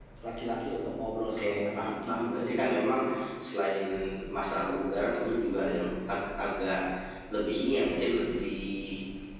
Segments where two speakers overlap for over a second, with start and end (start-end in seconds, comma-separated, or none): 1.4-3.0